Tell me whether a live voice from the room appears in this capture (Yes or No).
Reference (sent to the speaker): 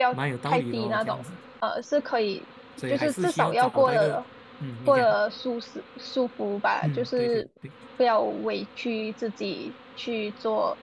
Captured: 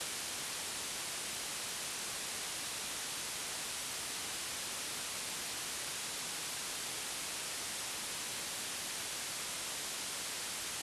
No